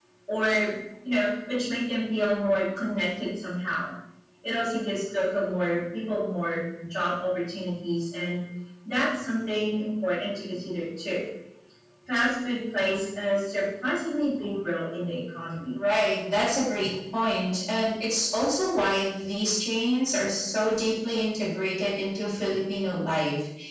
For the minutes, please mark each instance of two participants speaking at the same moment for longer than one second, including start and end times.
none

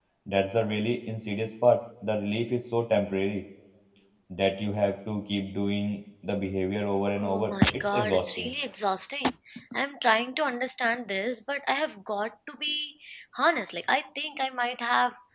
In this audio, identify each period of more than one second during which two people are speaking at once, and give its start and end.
7.2-8.5

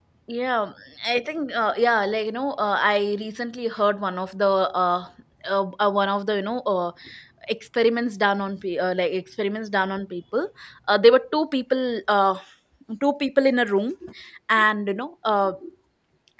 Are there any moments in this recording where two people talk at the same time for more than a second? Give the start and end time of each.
none

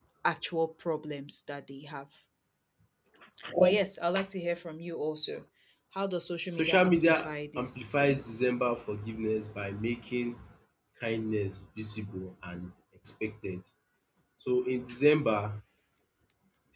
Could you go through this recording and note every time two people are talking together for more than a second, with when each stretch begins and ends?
6.5-8.4

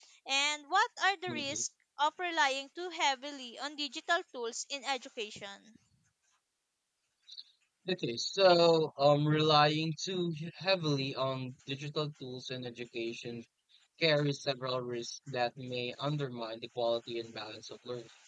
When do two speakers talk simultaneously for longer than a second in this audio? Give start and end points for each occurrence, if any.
none

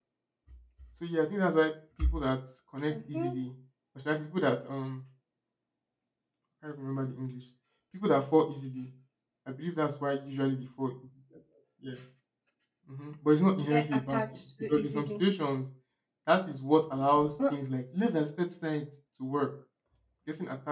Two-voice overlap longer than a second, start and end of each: 13.6-15.2

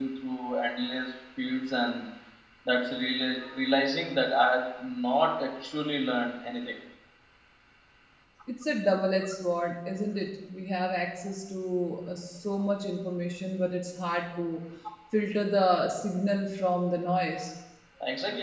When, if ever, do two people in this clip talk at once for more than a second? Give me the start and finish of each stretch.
none

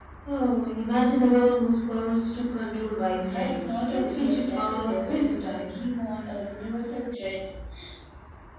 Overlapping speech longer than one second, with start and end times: 3.1-5.8

